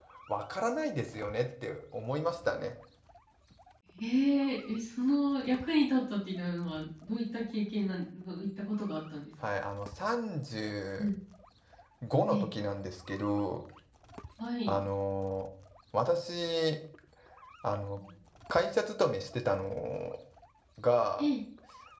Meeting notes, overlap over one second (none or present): none